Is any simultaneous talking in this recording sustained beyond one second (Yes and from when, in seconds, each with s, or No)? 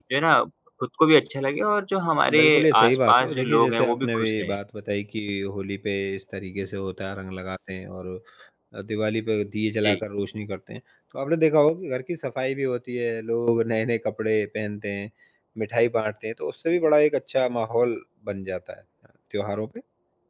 Yes, from 2.3 s